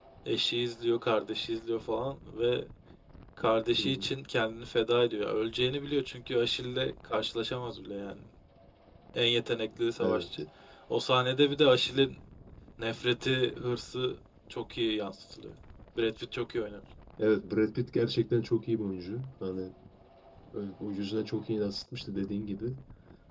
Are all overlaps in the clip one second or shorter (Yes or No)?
Yes